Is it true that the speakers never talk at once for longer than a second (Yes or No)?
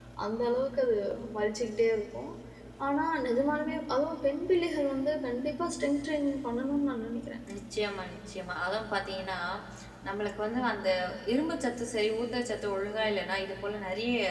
Yes